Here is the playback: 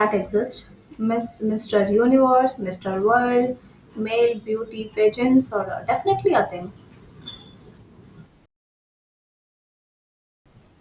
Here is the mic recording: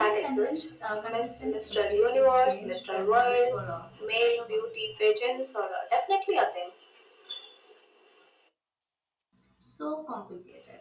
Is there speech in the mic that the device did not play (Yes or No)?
Yes